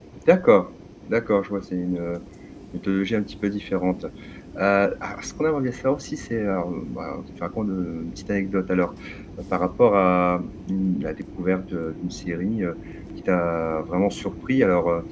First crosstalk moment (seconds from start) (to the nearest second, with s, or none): none